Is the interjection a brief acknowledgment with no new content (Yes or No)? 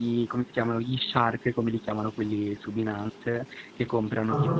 Yes